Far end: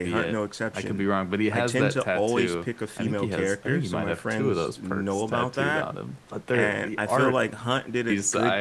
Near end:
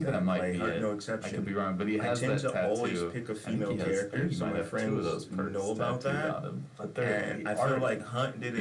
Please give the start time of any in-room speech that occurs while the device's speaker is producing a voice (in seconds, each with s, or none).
none